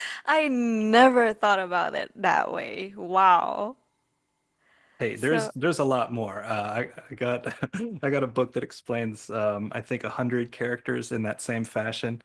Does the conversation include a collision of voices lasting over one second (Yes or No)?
No